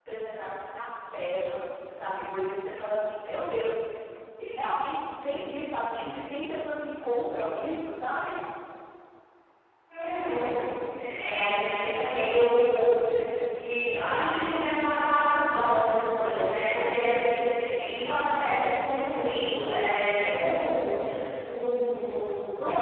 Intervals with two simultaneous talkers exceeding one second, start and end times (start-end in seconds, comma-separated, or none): none